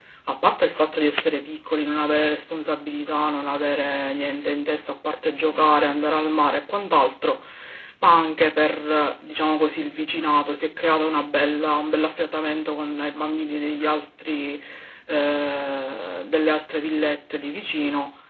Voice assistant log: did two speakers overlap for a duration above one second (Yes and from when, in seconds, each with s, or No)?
No